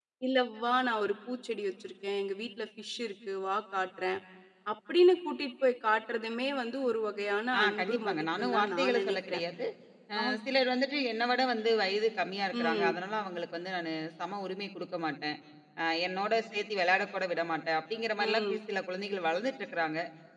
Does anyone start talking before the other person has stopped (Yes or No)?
Yes